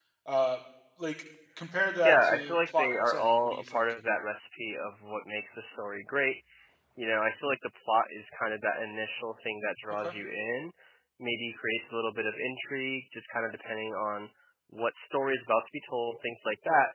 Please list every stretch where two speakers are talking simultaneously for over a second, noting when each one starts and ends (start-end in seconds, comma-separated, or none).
2.0-3.8